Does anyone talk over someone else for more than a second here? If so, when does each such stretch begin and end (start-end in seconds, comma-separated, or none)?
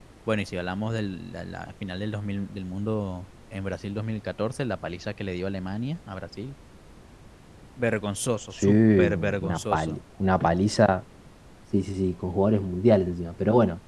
8.6-9.9